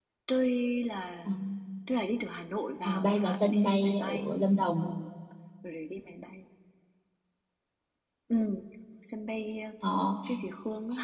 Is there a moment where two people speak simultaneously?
Yes, from 2.8 s

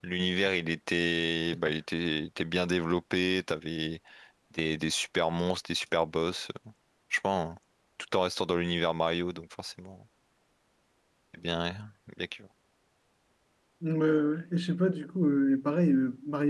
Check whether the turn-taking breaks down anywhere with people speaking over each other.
No

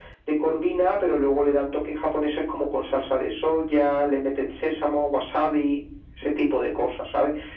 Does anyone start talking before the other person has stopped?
No

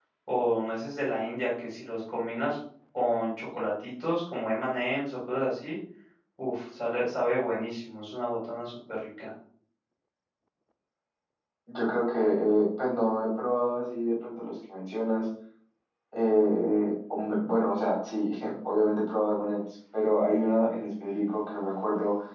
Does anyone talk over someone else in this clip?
No

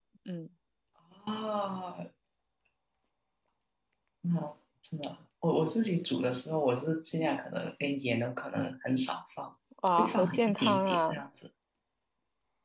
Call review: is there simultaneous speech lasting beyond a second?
Yes, from 10.0 s

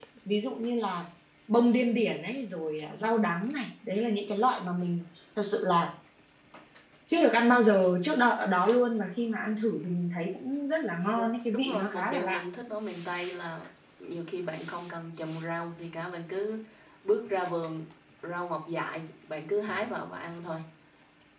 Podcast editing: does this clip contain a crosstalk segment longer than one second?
Yes, from 11.1 s

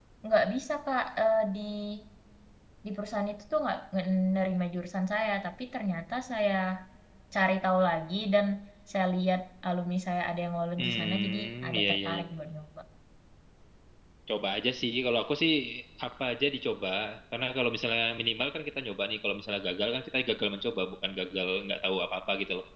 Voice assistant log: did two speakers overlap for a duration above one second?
Yes, from 10.8 s

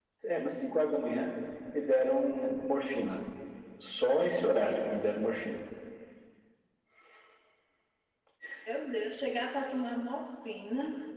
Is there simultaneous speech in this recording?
No

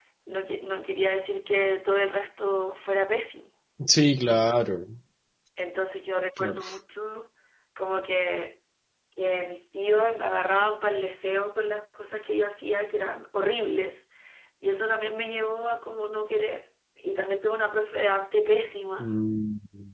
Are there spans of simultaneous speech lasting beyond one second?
No

